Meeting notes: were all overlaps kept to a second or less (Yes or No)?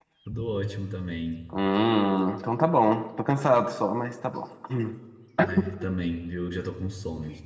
Yes